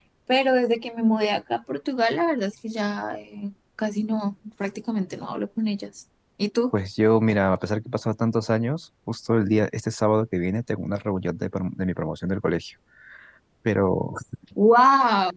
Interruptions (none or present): none